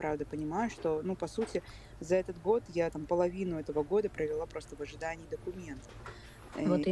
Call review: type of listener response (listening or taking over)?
listening